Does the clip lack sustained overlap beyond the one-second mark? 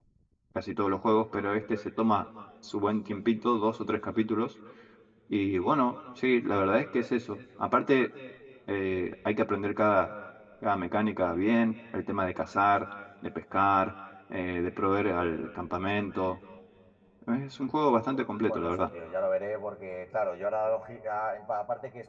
Yes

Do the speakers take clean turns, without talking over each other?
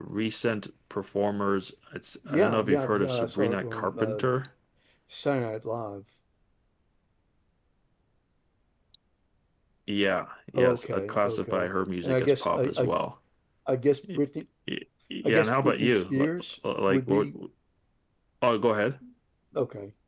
No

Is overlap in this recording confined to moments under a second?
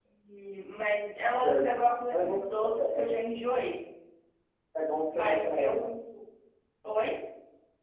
No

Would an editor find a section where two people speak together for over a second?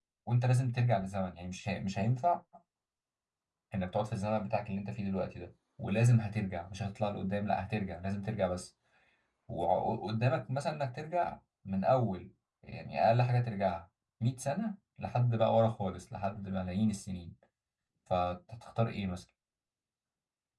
No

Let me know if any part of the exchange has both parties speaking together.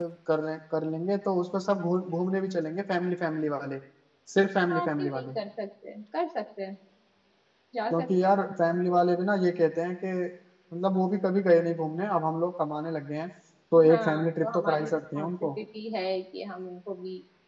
Yes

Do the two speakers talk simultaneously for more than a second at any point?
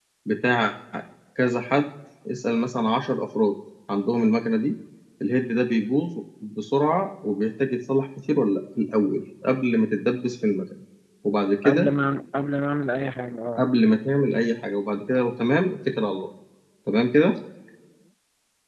No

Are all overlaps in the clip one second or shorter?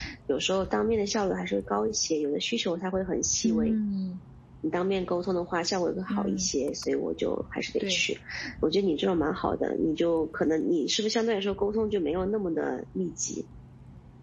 Yes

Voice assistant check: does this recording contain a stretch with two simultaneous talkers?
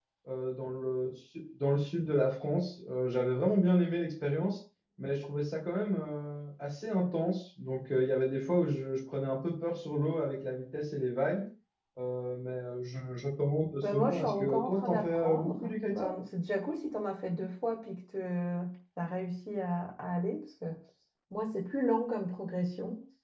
Yes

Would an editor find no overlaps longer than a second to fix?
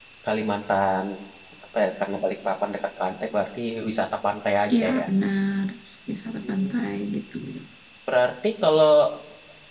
Yes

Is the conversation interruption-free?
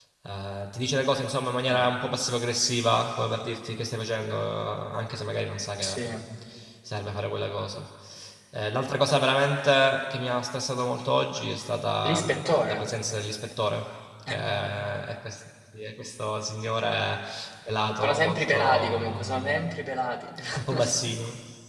No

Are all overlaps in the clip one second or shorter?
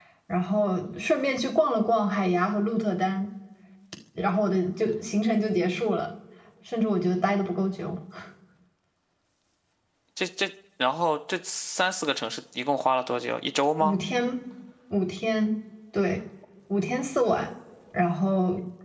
Yes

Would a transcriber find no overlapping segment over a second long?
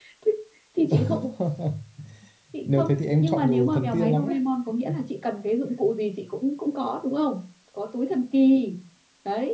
No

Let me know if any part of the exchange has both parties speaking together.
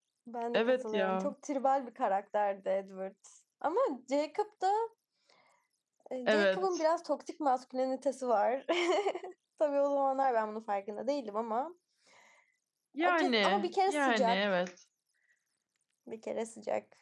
Yes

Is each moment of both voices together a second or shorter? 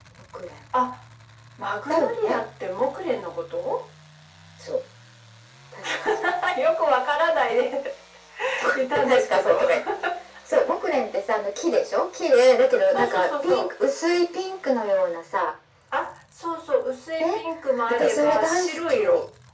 No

